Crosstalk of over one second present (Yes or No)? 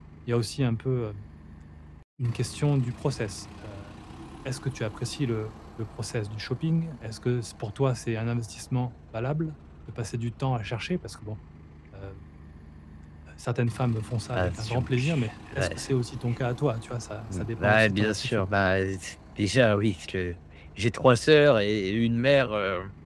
Yes